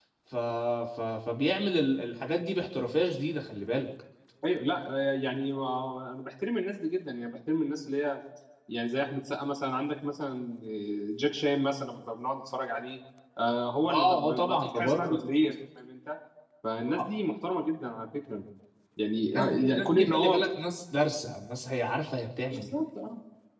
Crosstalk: present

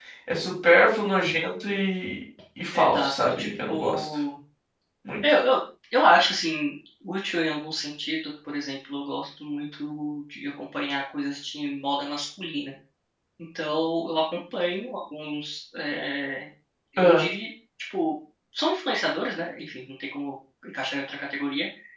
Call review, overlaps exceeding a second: present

